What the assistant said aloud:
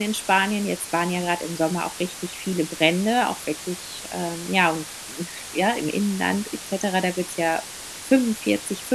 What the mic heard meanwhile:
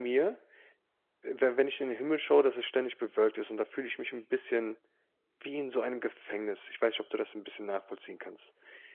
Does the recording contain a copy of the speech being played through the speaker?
No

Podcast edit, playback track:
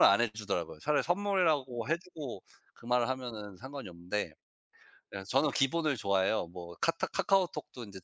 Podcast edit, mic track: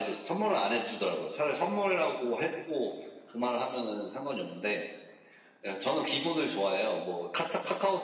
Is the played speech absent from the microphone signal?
No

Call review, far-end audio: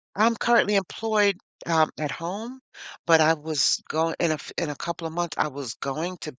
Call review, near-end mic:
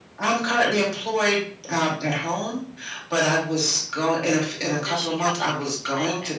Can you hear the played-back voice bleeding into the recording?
Yes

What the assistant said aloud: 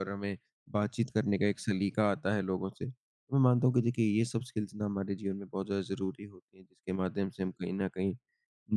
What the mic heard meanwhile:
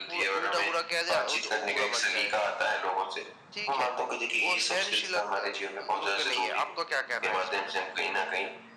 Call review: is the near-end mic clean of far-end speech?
No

